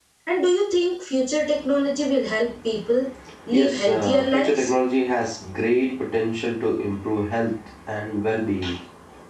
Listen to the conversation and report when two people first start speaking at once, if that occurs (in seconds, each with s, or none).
3.5 s